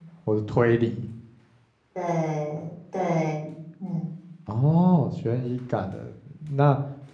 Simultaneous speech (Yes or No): No